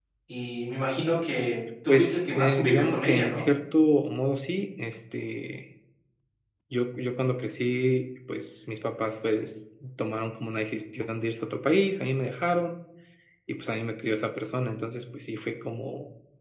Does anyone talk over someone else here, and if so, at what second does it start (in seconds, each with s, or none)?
1.9 s